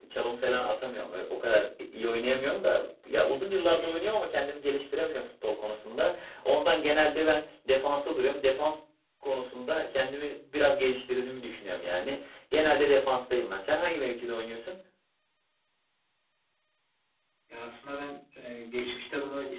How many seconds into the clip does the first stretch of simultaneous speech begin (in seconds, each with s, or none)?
none